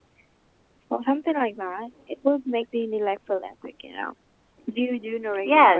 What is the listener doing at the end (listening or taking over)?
taking over